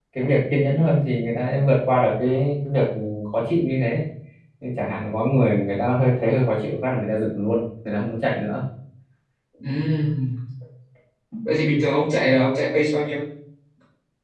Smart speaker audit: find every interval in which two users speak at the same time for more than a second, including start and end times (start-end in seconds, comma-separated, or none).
none